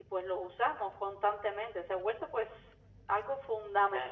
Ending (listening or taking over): listening